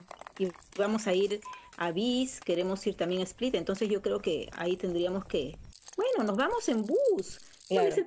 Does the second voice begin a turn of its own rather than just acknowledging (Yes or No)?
No